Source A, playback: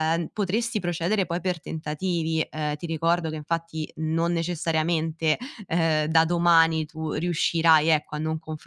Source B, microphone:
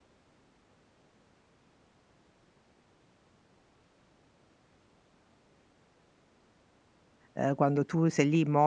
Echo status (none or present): none